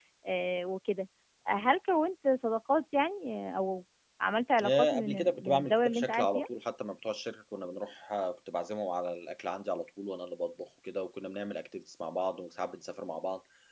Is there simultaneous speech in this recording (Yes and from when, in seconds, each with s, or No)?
Yes, from 4.6 s